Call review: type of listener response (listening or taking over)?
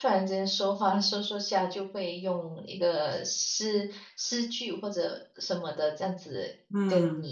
listening